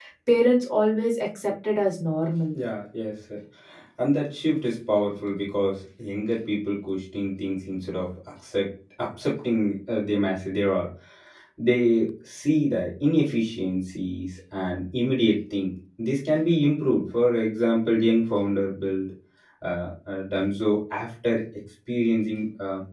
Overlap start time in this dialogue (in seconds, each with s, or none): none